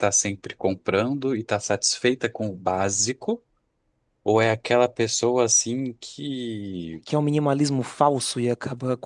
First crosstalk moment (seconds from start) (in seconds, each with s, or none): none